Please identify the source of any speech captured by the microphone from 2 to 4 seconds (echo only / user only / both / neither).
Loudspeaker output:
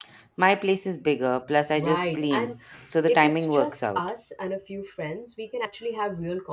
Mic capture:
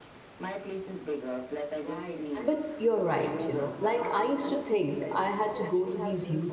both